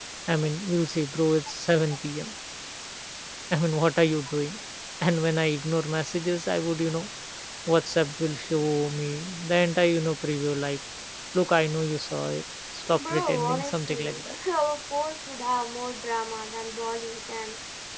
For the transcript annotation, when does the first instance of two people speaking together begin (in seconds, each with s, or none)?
12.9 s